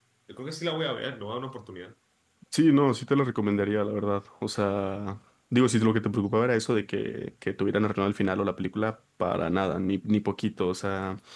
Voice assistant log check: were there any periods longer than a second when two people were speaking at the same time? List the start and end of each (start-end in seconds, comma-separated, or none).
none